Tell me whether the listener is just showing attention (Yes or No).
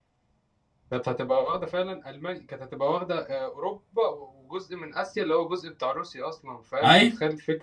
Yes